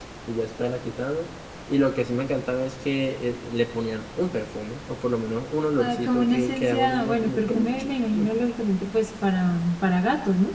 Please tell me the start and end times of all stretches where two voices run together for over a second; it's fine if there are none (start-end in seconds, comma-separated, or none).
5.8-8.2